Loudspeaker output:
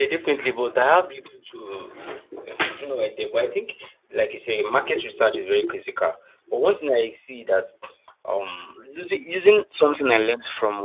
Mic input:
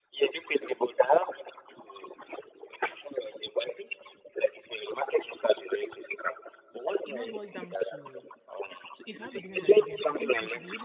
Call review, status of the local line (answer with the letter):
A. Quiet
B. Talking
B